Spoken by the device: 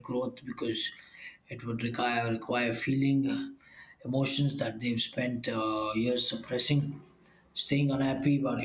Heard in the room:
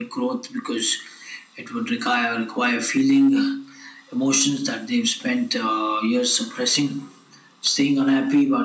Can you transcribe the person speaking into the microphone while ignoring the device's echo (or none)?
none